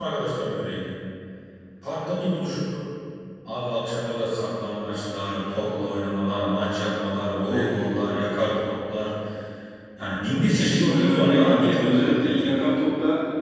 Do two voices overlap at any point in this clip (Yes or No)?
Yes